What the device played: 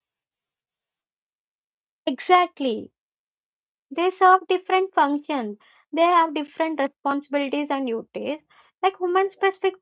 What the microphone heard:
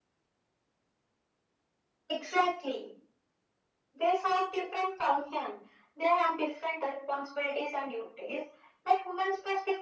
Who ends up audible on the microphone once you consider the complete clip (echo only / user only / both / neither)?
echo only